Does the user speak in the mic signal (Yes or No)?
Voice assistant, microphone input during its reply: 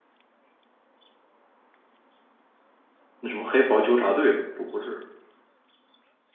Yes